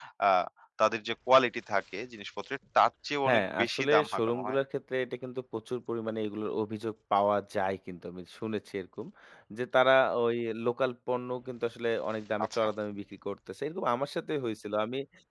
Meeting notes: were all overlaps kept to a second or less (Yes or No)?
No